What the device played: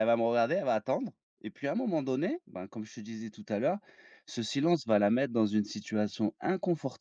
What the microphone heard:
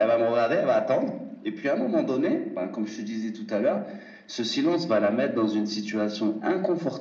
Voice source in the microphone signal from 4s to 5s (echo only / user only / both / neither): echo only